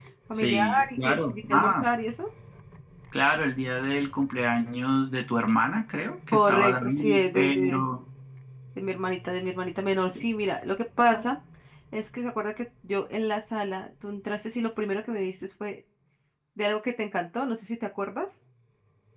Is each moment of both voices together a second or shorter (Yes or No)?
No